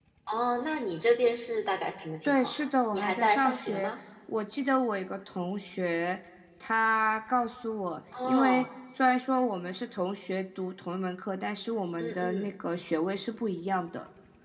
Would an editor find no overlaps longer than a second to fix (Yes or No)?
No